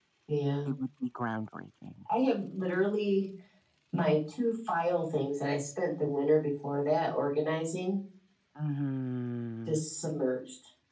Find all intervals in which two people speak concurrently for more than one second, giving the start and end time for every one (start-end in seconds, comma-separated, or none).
none